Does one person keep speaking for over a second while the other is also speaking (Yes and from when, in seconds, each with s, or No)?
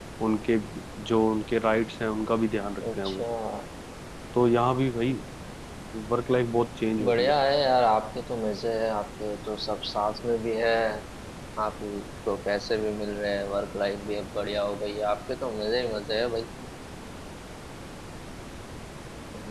No